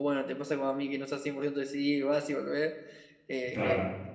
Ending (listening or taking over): listening